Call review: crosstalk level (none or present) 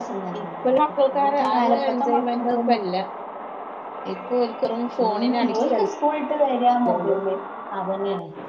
present